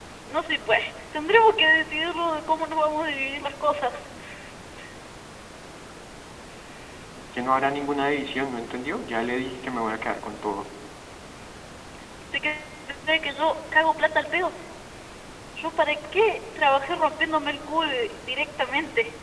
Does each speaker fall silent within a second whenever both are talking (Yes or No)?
Yes